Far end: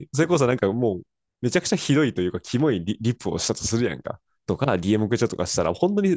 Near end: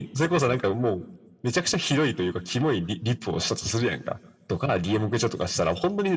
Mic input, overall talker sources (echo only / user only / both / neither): echo only